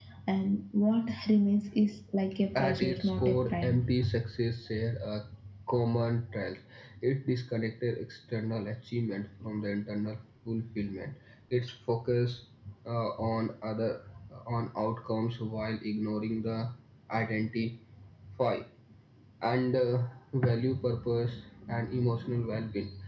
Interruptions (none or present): present